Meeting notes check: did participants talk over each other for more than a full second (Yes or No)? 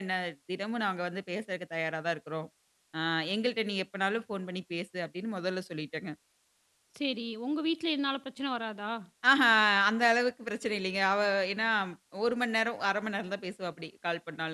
No